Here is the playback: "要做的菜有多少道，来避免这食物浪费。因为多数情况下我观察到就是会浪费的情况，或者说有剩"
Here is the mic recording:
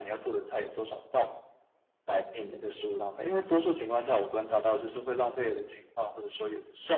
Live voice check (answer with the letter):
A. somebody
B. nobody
B